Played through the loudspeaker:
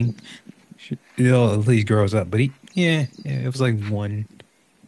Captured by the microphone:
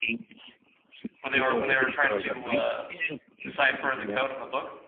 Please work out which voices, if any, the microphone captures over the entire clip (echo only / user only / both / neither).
both